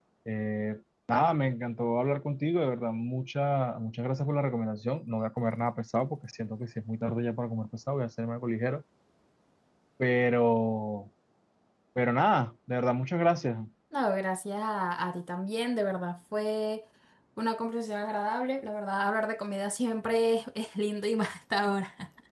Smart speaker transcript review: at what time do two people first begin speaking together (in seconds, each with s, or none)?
none